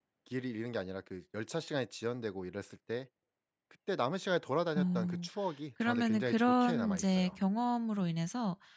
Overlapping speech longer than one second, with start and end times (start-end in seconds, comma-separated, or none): 5.8-7.4